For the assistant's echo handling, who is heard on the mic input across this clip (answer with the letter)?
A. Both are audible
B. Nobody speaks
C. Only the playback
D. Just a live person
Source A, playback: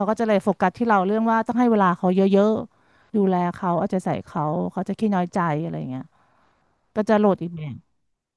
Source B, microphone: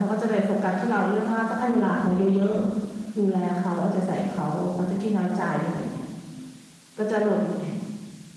C